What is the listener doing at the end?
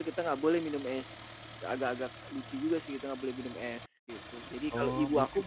taking over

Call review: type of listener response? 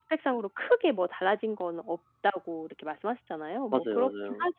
listening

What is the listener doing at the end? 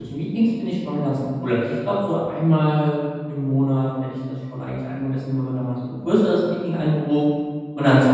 listening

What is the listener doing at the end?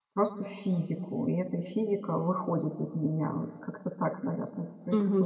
taking over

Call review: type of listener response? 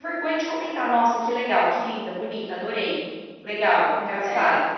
listening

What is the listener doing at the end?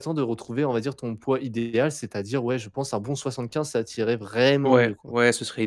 taking over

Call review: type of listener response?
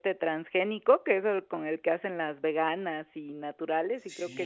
taking over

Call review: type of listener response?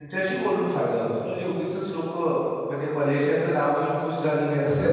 taking over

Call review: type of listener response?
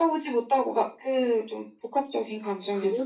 taking over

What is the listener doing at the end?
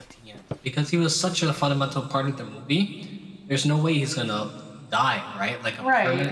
listening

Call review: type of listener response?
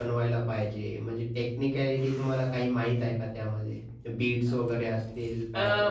taking over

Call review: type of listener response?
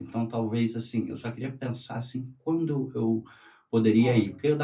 listening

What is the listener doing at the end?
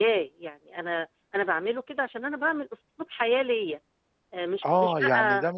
taking over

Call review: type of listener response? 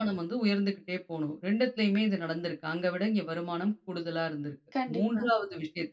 listening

